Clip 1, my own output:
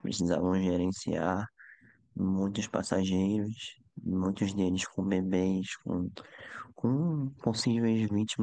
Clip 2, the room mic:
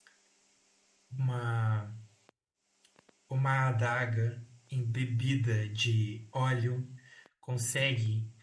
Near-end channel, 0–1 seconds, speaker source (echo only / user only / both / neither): neither